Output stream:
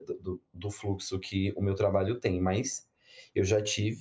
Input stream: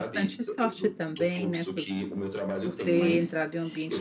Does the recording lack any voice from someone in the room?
No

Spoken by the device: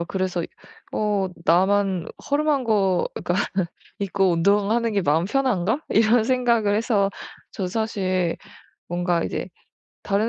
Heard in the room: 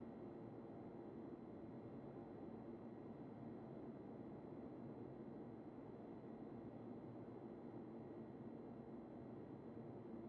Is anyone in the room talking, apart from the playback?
No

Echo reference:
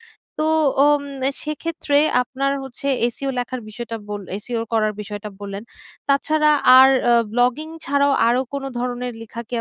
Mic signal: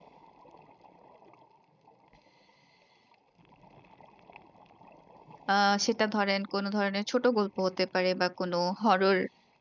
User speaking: Yes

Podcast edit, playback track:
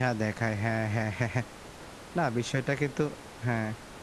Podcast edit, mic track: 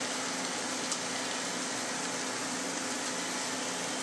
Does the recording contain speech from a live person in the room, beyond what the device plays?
No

